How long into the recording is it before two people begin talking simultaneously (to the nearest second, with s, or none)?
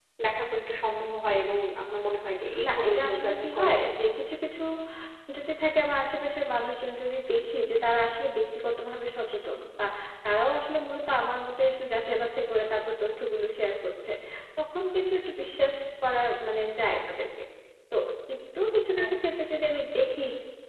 3 s